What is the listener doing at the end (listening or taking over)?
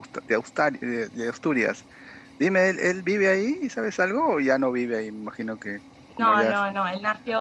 taking over